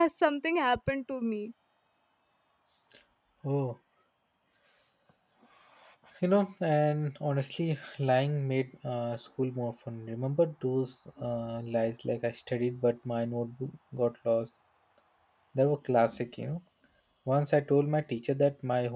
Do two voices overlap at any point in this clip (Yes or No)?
No